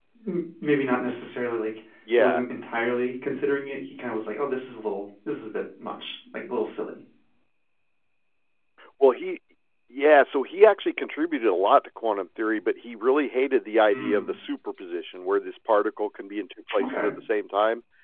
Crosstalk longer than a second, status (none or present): none